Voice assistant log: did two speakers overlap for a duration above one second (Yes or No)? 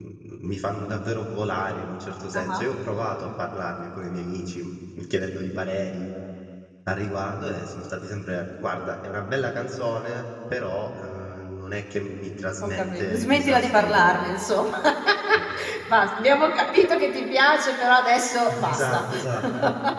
Yes